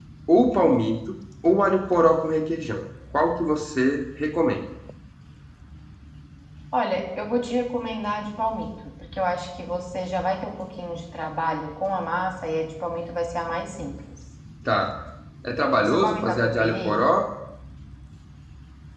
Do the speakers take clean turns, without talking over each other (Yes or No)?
No